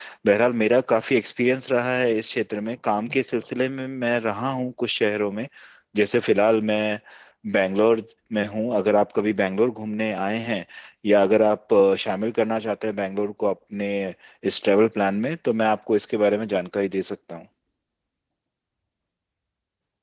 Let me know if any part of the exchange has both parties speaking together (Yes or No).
No